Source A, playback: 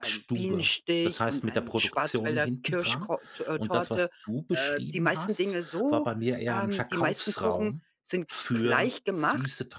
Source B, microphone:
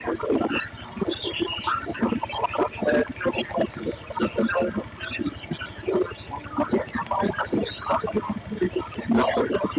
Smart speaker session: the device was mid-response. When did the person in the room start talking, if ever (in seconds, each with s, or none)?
none